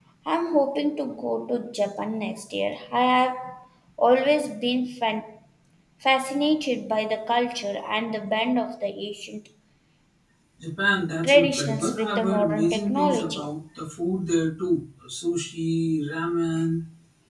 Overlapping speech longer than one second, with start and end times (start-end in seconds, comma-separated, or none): 11.2-13.5